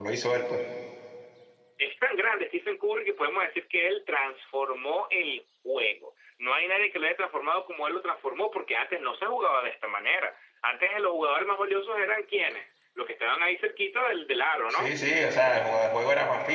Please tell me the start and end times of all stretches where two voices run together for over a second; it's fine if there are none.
none

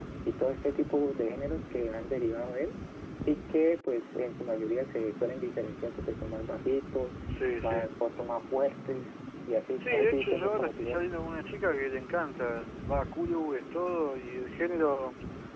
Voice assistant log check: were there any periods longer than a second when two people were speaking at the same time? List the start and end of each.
9.8-11.0

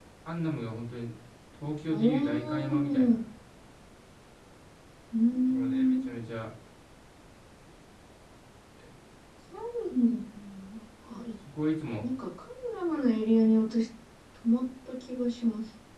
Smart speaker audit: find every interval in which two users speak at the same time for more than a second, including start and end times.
1.9-3.2

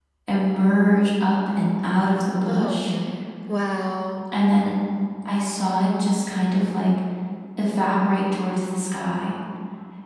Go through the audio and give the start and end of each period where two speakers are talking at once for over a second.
none

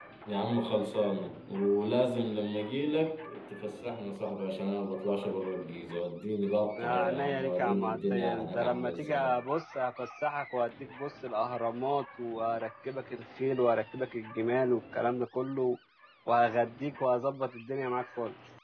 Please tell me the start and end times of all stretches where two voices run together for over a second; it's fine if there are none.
6.8-9.3

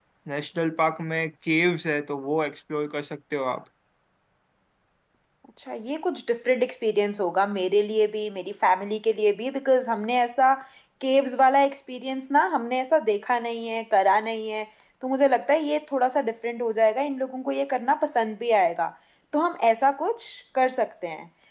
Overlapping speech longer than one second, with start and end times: none

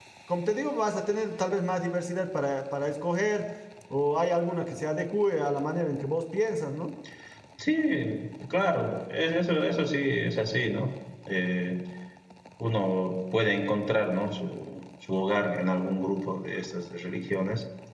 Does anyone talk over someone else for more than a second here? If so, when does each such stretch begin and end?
none

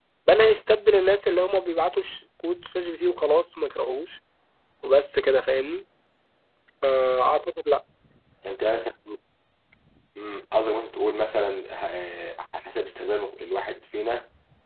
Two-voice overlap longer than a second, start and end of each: none

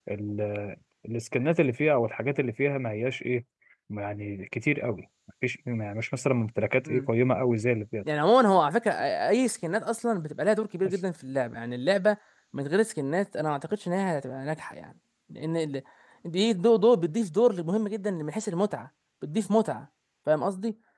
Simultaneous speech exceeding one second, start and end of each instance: none

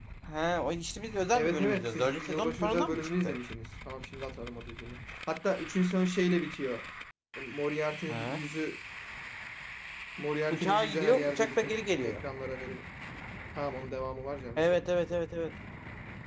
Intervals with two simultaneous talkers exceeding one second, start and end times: 1.3-3.4, 10.5-12.2

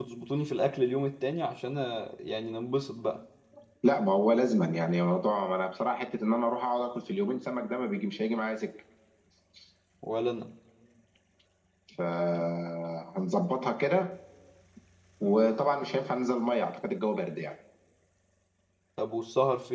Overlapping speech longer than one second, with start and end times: none

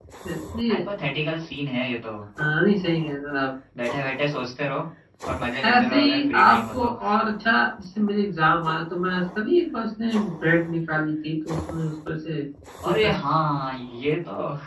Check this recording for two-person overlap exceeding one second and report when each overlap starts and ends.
5.6-6.9

